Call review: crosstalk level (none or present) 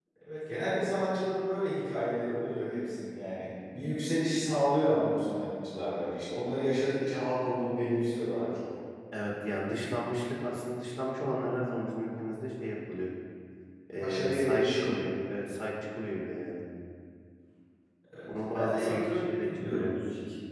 present